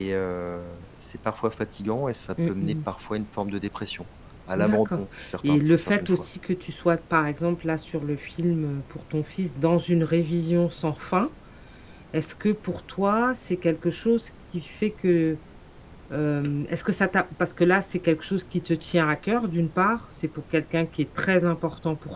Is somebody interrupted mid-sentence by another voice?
Yes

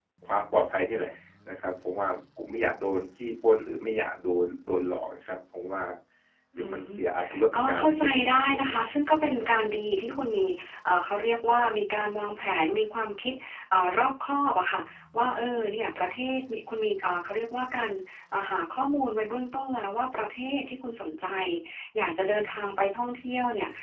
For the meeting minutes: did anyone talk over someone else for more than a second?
Yes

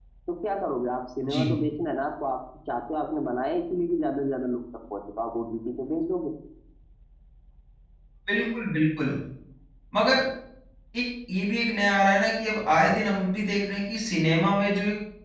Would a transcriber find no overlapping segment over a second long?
Yes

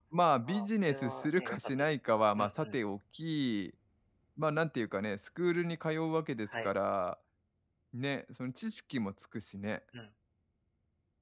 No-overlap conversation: No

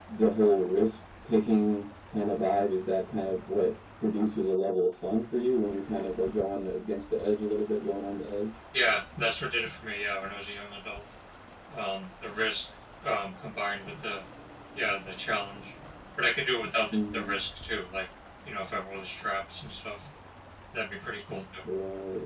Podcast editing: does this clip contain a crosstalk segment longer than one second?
No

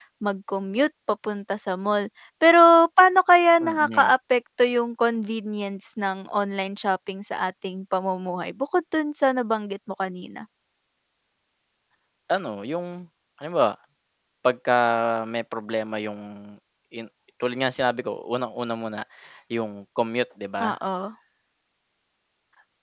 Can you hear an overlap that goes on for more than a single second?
No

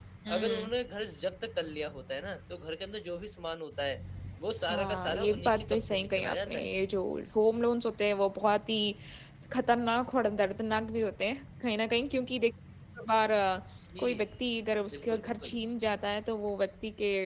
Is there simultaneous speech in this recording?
Yes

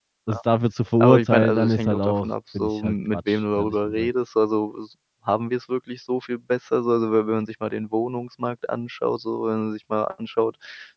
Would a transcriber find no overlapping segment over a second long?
No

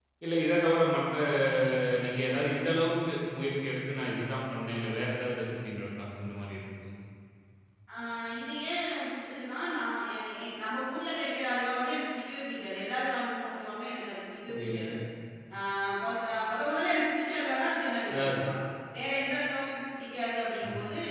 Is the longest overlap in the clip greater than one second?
No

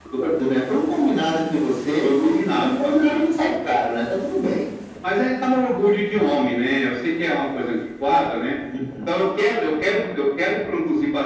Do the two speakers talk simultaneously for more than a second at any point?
Yes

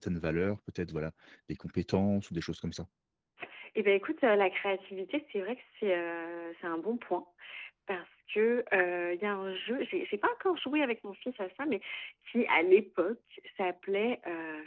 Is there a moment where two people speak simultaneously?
No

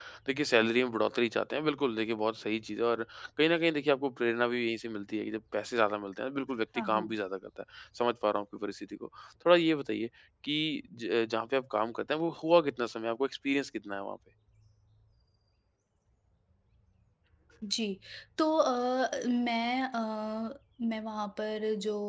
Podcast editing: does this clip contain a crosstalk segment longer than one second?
No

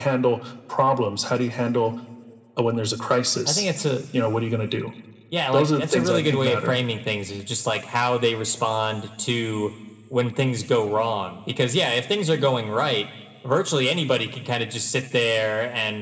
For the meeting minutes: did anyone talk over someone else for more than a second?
Yes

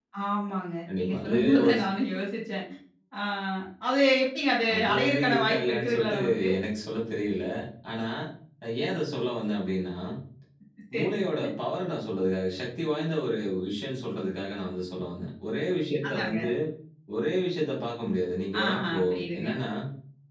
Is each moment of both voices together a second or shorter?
No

